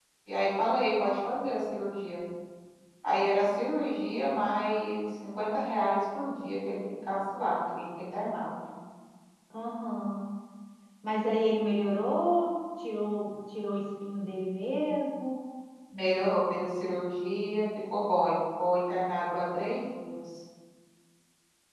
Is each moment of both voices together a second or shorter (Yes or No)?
Yes